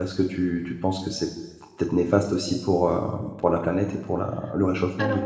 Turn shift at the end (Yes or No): Yes